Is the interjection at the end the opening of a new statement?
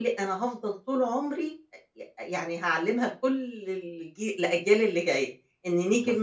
Yes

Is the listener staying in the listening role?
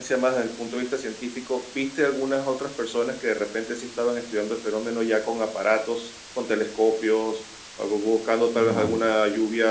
Yes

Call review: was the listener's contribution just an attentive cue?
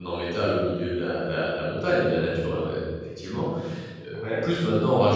Yes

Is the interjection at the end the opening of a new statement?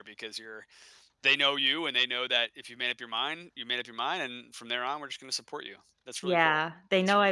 Yes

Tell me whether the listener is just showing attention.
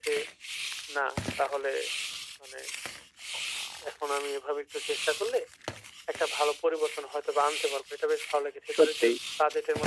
Yes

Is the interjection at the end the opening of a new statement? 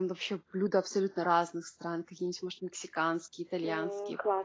No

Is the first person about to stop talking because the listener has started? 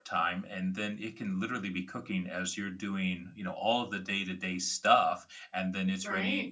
No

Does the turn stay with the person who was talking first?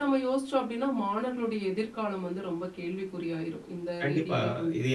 No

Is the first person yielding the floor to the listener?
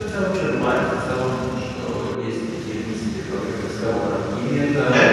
No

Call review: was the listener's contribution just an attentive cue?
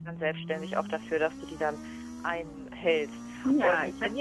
No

